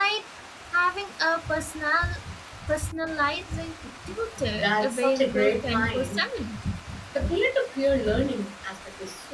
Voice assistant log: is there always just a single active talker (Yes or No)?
No